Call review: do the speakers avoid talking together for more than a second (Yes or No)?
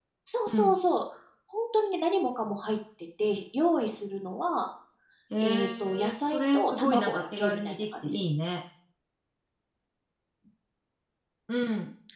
No